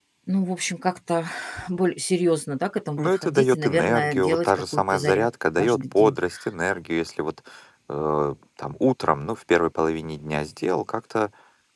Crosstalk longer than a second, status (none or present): present